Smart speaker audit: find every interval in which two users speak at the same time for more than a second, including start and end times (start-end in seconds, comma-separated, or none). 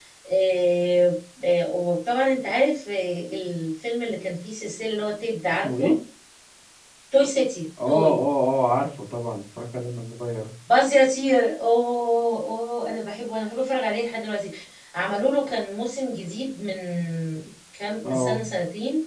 none